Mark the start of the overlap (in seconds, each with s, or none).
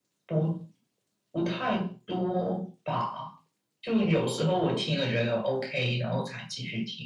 none